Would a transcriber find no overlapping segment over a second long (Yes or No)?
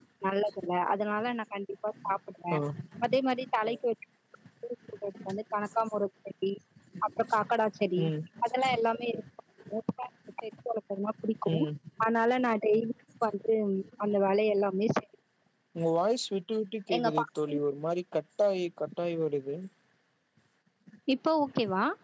Yes